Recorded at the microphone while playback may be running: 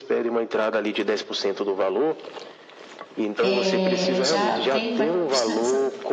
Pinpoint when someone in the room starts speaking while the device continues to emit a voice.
3.4 s

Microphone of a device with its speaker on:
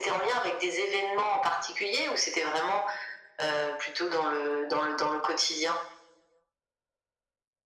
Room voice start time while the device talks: none

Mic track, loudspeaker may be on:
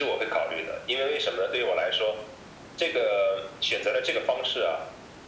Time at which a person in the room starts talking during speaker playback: none

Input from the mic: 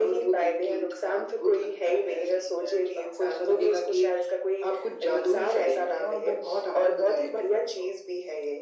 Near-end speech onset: none

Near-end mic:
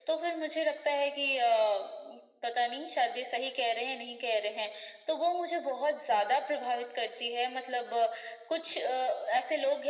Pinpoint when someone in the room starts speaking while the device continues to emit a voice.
none

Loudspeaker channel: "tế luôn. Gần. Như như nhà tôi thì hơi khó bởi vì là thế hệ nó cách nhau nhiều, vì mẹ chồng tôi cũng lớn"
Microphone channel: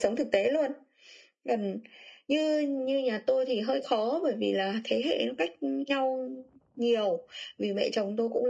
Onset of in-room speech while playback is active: none

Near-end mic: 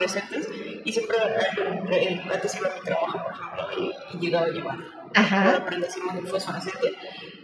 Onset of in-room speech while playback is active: 5.1 s

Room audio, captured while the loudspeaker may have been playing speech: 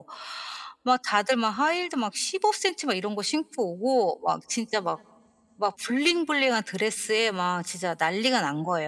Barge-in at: none

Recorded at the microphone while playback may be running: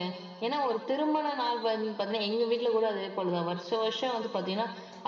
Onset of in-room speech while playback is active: none

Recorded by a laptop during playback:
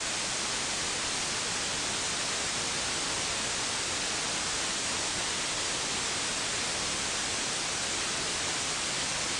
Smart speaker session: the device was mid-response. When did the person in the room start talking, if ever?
none

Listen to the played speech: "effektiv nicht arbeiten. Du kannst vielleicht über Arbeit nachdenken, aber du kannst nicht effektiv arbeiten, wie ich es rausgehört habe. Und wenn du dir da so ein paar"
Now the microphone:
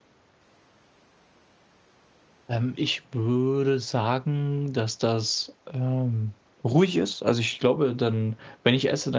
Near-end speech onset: 2.5 s

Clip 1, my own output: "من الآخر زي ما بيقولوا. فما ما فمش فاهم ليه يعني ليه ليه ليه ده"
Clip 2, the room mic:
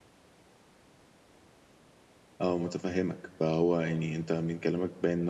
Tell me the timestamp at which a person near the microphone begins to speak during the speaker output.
2.4 s

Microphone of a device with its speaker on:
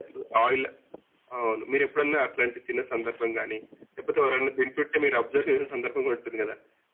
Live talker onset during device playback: none

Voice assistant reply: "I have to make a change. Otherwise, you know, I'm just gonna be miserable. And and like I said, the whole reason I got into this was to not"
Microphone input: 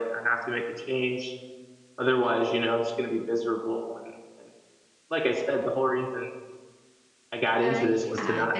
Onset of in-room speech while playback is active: 7.6 s

